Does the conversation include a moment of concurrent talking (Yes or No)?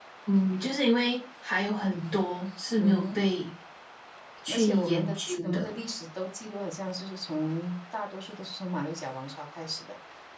Yes